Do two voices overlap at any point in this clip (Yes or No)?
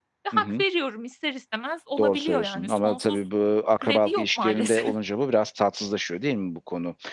Yes